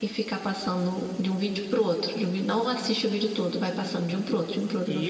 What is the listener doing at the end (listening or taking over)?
taking over